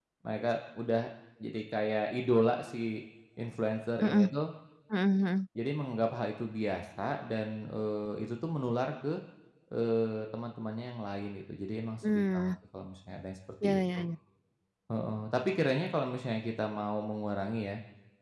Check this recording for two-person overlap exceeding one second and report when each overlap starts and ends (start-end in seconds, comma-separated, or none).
none